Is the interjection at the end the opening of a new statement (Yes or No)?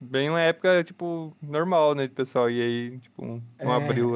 Yes